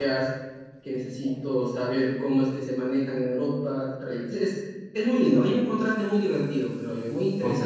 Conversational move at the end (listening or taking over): taking over